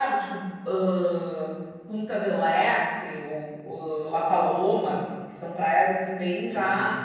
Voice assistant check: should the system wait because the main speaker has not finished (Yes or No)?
Yes